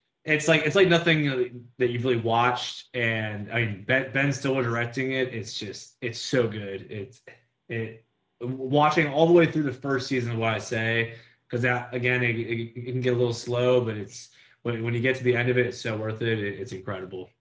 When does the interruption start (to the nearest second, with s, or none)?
none